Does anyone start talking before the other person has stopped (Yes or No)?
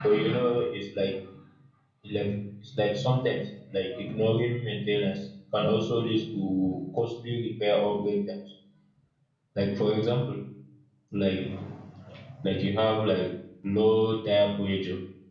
No